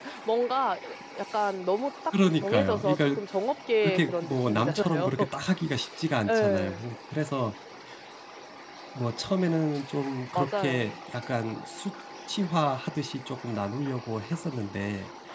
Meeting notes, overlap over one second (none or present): present